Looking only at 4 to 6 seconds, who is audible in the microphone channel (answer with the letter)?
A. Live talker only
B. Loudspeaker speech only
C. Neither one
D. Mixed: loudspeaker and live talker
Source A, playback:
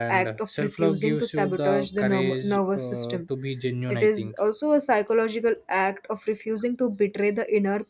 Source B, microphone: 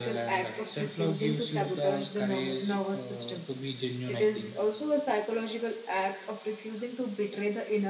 B